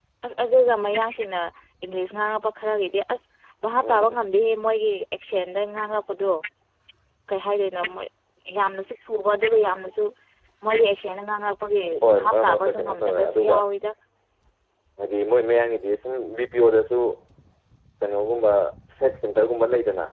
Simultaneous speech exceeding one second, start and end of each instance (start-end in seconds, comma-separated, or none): 12.1-13.6